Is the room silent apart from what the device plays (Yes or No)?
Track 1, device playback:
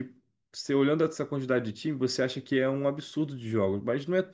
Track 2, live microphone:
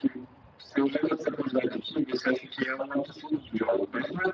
Yes